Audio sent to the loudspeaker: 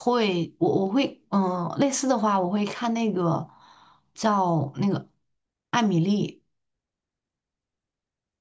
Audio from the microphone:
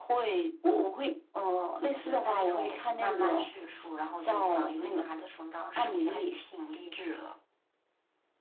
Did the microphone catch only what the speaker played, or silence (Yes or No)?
No